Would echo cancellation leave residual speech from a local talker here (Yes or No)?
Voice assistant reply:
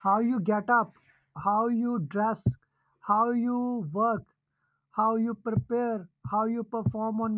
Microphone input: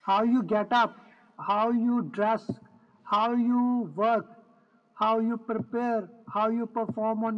No